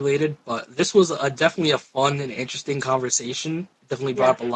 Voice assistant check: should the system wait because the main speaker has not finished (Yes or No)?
Yes